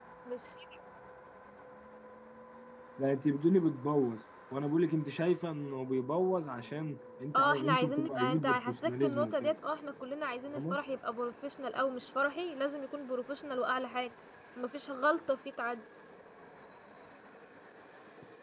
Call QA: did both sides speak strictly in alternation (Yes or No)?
No